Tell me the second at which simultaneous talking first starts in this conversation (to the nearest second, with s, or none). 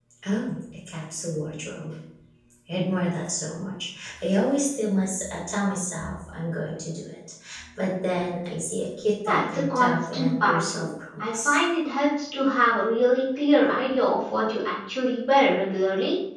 9 s